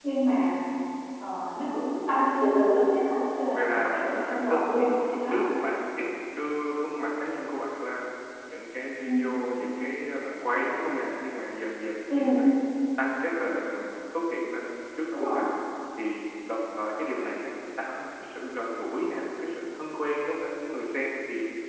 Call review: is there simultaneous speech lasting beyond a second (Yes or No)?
Yes